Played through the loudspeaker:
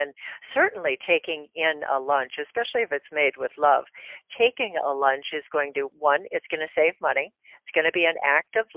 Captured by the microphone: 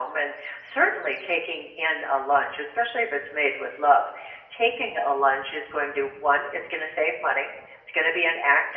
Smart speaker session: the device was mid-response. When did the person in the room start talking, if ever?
none

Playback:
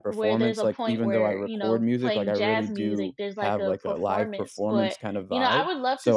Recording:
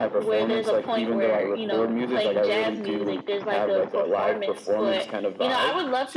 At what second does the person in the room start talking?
none

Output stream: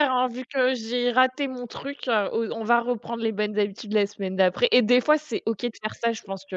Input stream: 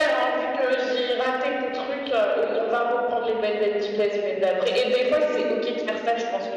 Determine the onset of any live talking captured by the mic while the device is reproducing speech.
none

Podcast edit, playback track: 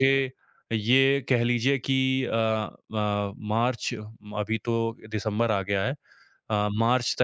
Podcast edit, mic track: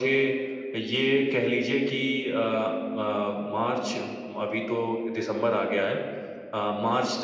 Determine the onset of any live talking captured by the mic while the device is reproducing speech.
none

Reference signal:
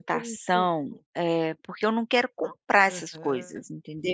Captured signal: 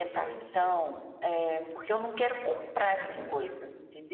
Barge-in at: 2.9 s

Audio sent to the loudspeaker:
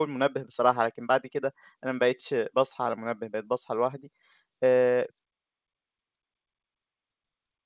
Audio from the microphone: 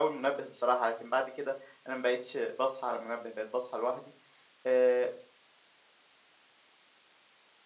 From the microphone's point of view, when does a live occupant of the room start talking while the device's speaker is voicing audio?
none

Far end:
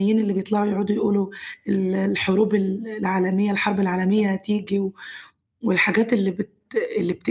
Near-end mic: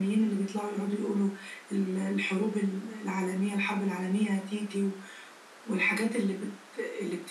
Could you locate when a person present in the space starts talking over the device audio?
none

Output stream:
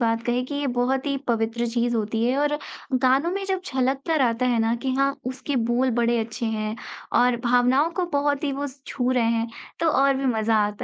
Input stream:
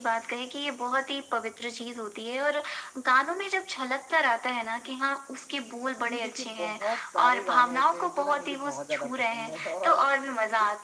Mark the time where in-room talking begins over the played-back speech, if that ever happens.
6.0 s

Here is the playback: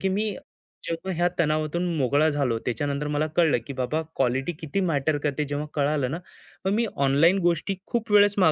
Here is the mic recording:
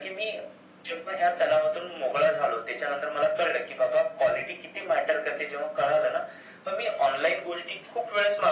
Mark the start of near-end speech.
none

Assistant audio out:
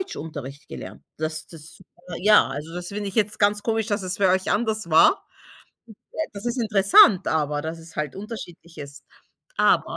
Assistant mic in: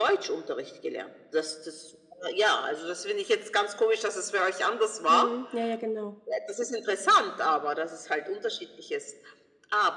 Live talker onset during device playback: 5.0 s

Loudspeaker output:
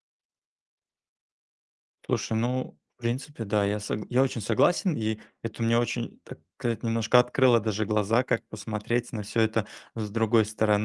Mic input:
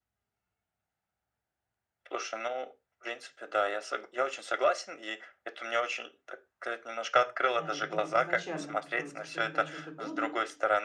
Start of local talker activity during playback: 7.5 s

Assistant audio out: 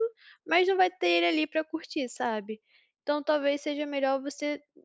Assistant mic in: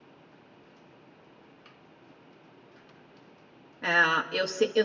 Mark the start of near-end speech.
3.8 s

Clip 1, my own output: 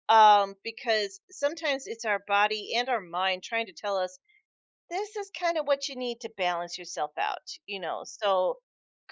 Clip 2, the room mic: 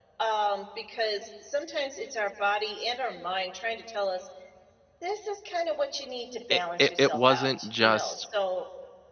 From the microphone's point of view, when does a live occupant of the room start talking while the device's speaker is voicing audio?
6.5 s

